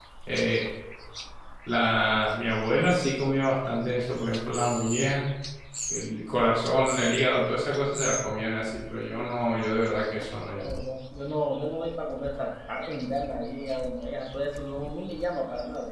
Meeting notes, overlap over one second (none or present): none